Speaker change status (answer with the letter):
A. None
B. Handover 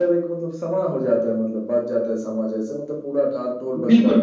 B